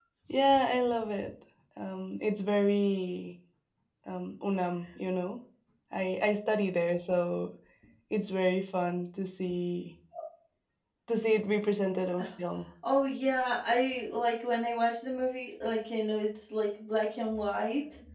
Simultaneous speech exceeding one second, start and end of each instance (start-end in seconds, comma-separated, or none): none